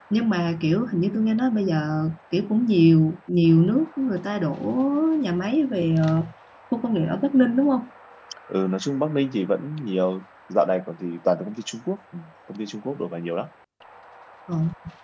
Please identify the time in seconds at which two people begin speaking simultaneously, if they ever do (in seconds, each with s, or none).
none